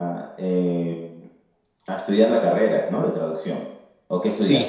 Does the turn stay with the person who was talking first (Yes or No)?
No